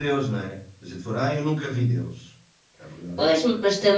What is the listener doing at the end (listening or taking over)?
taking over